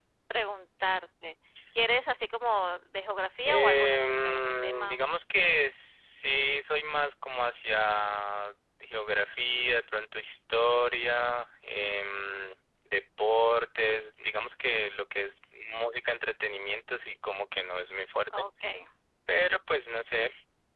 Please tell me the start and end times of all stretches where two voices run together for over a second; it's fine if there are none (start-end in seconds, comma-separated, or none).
3.4-5.0